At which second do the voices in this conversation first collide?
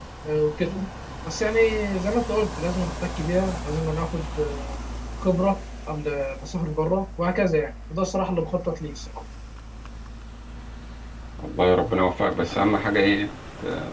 none

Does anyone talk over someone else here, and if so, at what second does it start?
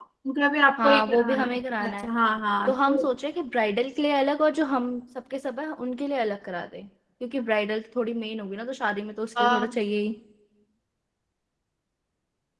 0.8 s

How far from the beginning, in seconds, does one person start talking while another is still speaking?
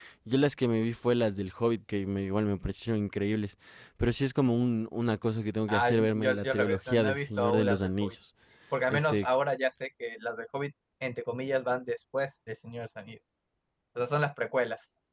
5.7 s

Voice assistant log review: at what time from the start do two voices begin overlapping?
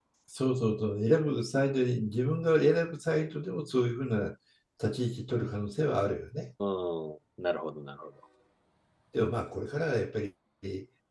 none

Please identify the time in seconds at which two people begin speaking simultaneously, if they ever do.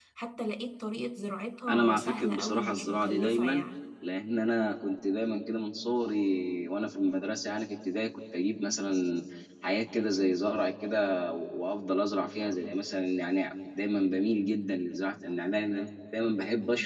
1.7 s

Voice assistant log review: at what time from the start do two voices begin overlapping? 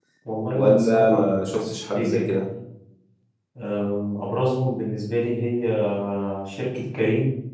0.5 s

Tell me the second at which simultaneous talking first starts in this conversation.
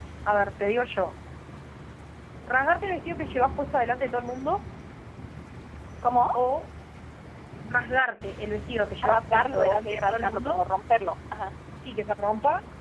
9.0 s

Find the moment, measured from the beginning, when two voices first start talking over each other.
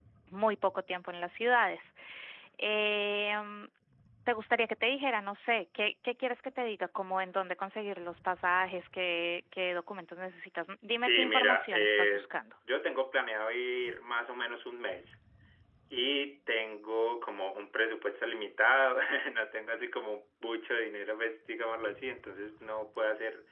10.9 s

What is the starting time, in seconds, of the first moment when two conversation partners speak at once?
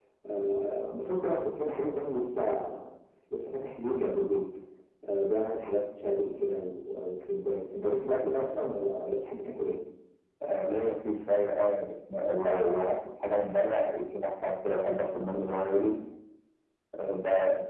none

